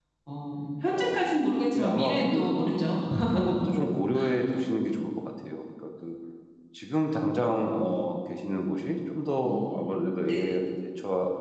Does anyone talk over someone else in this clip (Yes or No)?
Yes